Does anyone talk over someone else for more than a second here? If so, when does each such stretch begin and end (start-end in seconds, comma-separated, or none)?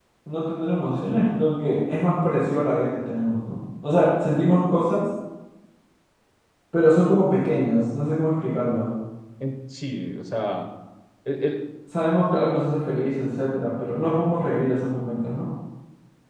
none